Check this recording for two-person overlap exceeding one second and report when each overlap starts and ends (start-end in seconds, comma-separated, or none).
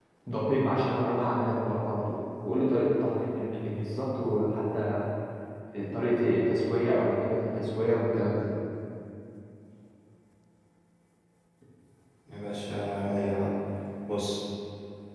none